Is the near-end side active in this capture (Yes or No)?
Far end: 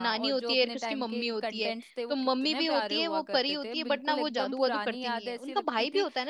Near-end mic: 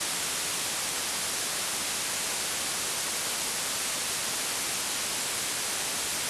No